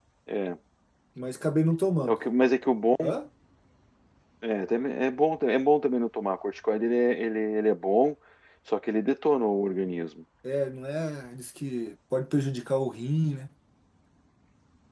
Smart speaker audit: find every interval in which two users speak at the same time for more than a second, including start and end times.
none

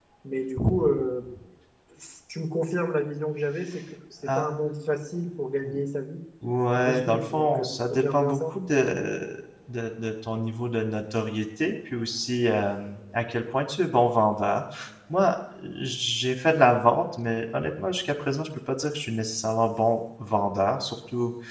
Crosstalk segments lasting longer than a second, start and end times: 6.8-8.5

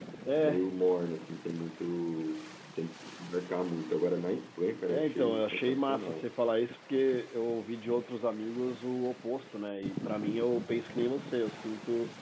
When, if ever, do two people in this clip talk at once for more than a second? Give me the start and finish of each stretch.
4.9-6.2

